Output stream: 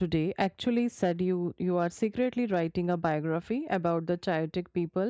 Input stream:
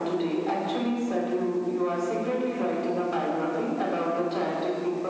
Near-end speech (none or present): none